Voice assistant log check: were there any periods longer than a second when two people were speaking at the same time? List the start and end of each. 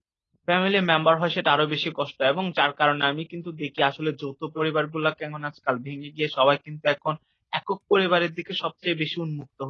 none

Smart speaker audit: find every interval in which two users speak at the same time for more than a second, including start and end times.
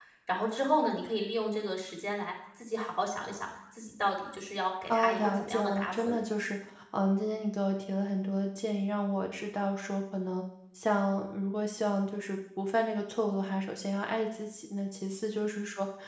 4.9-6.1

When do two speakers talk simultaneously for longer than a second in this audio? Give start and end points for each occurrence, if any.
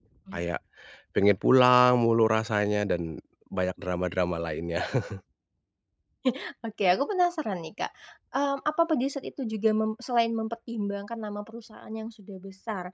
none

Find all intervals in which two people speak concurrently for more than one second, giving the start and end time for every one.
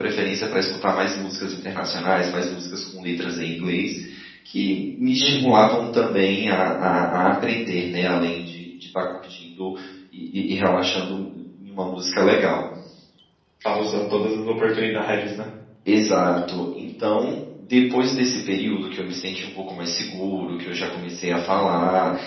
none

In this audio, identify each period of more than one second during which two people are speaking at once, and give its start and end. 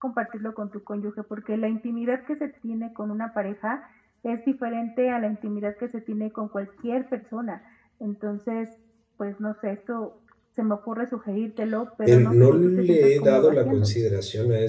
12.0-13.9

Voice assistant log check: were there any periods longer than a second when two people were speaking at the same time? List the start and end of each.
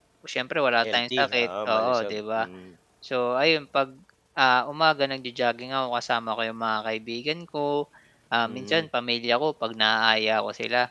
0.8-2.5

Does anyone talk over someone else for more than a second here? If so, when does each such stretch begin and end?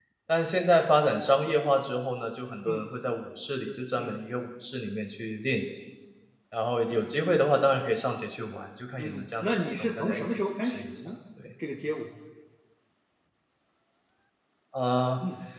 9.0-11.0

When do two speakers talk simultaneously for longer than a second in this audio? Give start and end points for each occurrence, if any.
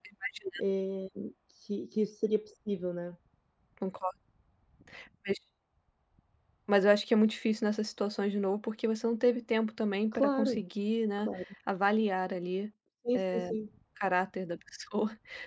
none

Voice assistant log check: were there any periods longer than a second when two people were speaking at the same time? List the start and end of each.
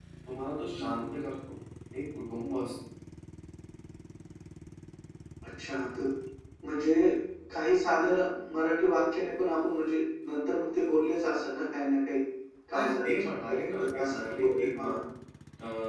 12.7-14.9

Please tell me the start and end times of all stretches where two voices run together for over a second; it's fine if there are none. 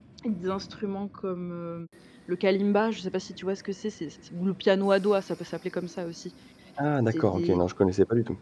none

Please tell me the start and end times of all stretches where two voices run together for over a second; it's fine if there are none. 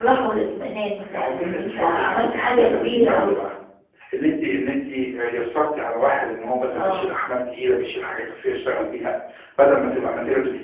1.1-3.4

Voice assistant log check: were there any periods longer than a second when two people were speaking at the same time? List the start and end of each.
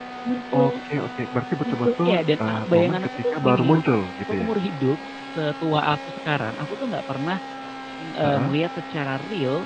1.6-3.8

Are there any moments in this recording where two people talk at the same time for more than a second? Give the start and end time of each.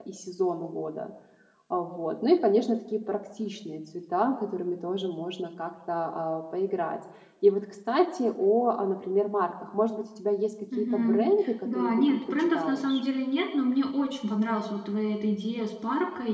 11.7-13.0

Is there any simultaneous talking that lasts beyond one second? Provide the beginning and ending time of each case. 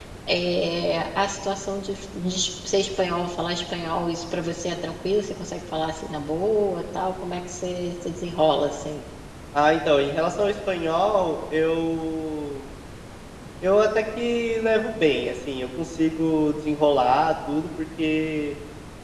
none

